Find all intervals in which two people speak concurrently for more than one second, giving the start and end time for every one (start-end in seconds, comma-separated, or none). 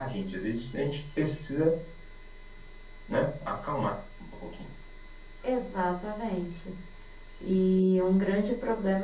none